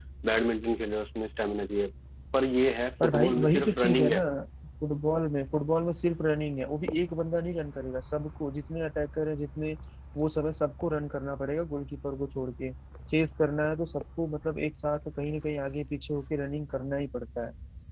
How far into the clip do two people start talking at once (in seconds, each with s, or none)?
3.0 s